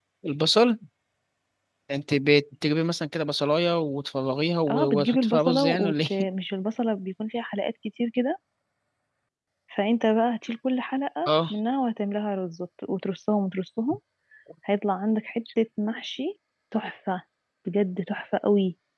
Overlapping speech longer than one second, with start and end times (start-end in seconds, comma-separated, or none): 4.7-6.3